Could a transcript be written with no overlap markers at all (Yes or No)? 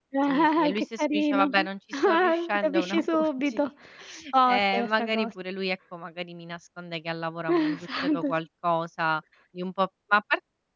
No